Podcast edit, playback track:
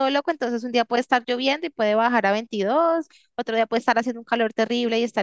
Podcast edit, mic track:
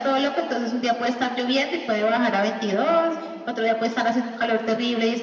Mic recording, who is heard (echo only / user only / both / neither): echo only